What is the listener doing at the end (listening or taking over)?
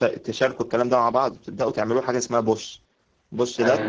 listening